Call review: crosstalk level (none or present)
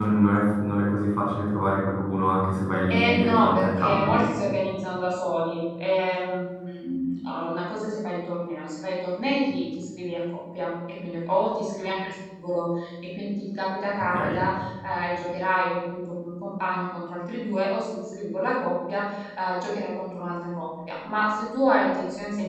present